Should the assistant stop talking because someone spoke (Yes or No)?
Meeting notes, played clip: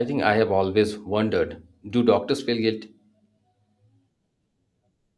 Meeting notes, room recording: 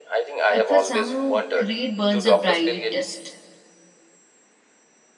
Yes